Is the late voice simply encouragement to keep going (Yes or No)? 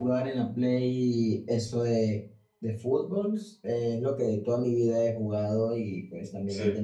Yes